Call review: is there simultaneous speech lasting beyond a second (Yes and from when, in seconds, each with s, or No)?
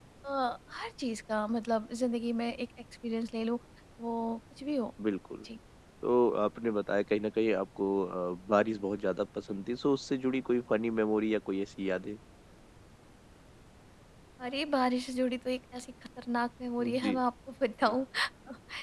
No